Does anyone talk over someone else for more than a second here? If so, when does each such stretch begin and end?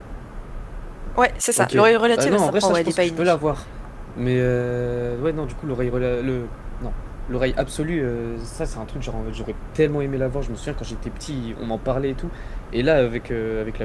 1.6-3.2

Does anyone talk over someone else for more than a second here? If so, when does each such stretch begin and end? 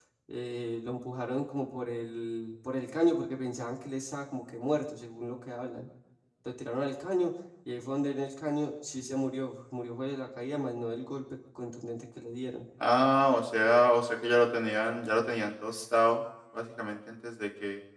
none

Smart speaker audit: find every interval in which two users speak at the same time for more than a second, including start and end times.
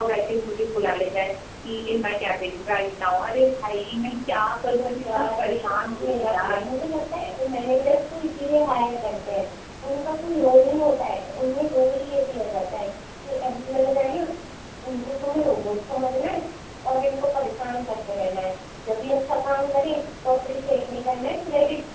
5.1-6.6

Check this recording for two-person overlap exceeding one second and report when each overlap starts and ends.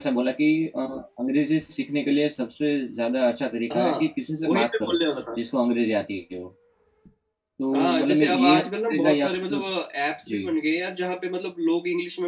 7.7-9.6

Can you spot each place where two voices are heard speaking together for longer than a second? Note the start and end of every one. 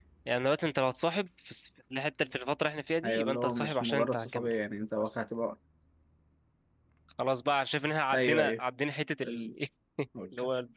3.0-4.5

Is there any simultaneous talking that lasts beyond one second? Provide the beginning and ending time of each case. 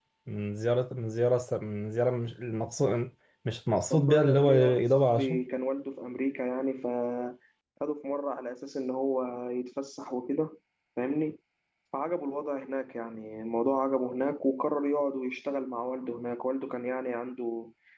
3.9-5.4

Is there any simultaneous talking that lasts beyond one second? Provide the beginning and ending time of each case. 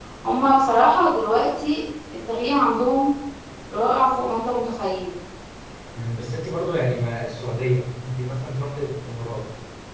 none

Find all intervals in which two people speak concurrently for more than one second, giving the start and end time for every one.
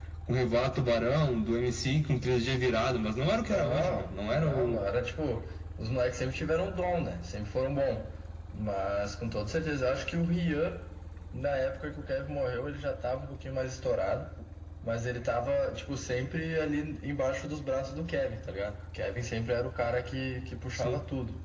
3.5-4.8

